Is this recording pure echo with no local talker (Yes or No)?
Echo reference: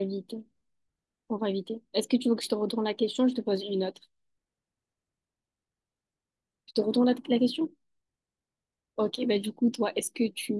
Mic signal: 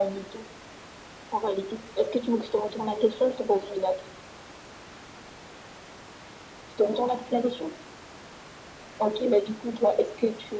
Yes